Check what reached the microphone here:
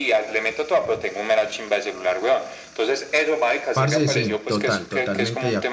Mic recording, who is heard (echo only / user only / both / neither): both